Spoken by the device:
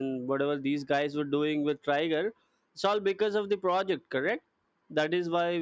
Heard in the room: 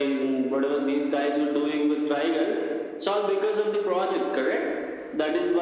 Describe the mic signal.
echo only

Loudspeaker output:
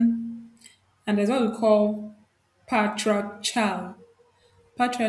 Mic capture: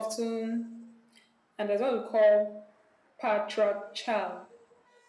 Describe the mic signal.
echo only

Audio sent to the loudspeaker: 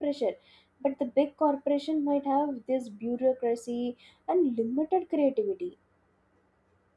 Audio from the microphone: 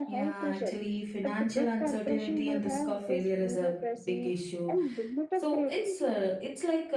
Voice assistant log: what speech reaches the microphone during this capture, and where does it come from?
both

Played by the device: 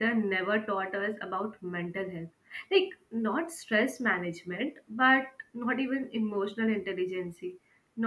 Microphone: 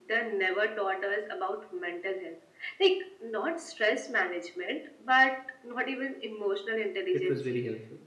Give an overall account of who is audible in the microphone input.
both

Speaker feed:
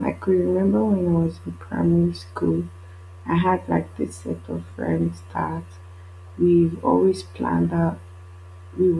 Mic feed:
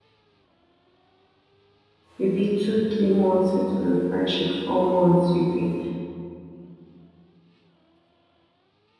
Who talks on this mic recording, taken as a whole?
user only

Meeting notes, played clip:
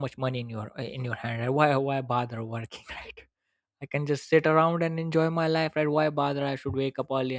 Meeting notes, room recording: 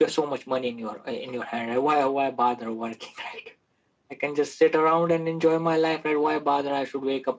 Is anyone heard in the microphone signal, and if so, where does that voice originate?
echo only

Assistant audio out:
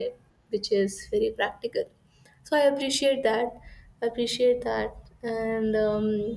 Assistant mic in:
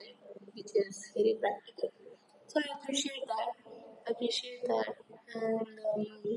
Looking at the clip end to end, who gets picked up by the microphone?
echo only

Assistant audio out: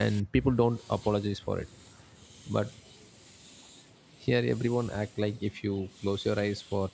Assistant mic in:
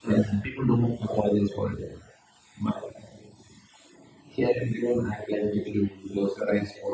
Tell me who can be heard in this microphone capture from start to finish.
echo only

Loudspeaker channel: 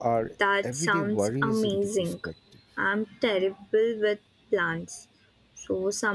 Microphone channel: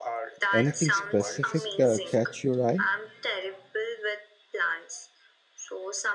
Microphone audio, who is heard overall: both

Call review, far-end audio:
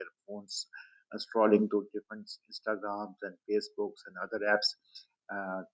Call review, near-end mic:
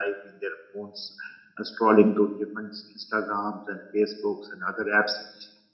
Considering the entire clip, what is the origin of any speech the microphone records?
echo only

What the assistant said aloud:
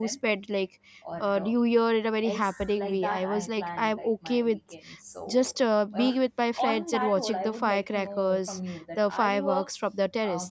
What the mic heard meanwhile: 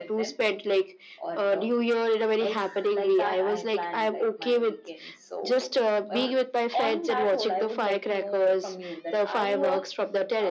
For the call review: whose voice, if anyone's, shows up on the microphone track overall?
echo only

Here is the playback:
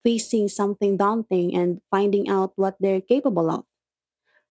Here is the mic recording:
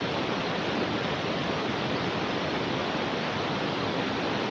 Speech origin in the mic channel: neither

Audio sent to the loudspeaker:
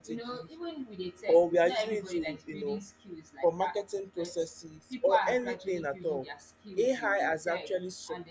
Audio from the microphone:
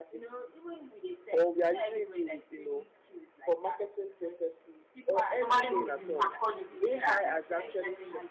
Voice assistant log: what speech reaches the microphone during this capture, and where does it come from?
both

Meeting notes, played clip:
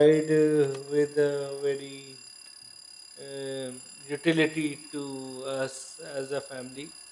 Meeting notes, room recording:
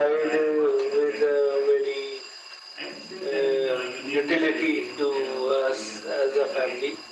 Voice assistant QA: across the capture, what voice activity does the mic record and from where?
both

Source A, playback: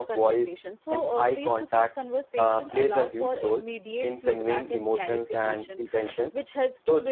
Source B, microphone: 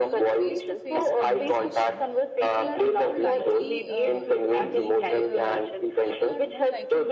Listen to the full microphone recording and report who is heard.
both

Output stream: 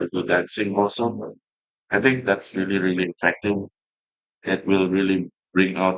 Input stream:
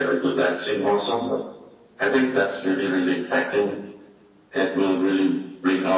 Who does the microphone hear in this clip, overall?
echo only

